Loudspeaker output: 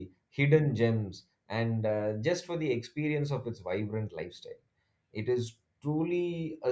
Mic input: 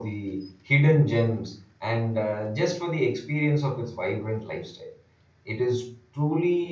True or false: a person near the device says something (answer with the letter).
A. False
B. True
A